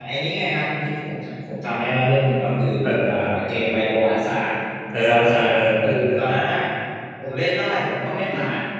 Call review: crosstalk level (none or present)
present